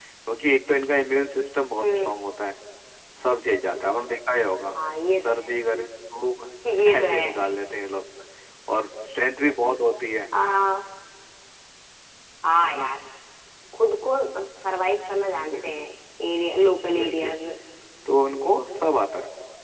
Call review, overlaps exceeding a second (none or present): none